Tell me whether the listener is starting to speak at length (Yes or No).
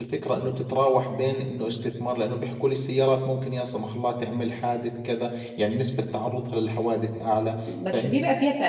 Yes